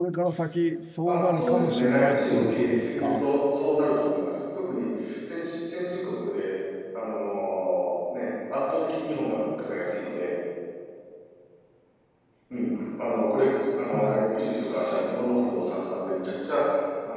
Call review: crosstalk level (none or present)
present